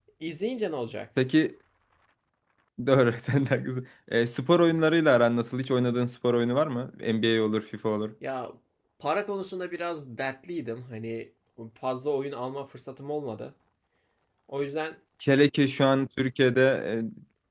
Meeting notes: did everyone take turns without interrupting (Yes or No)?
Yes